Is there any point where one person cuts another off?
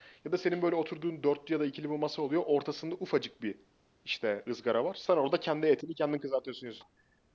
No

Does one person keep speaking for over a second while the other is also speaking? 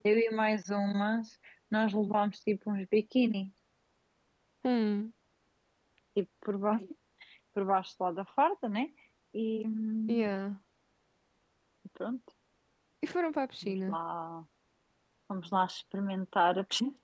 No

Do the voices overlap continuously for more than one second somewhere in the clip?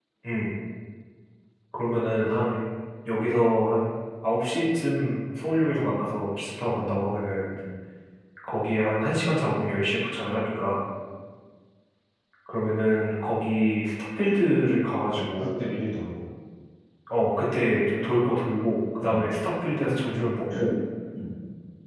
No

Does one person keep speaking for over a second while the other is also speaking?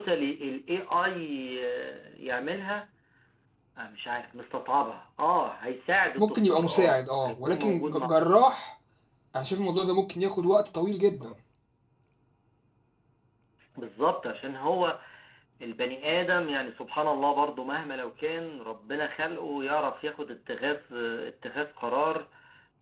Yes, from 6.2 s

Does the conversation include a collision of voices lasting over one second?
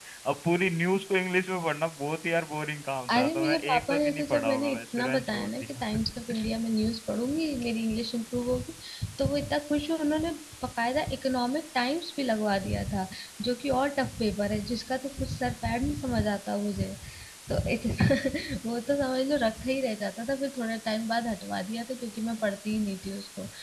Yes, from 3.1 s

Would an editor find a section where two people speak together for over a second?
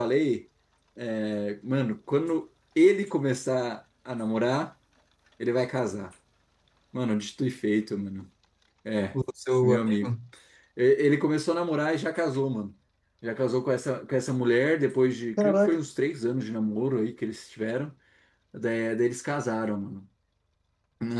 No

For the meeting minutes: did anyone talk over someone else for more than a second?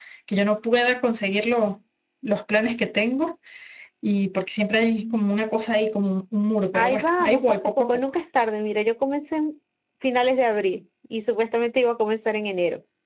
Yes, from 6.7 s

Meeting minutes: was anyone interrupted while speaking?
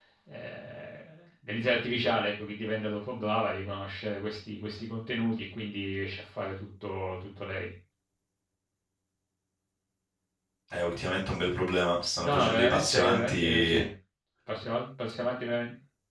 Yes, from 12.2 s

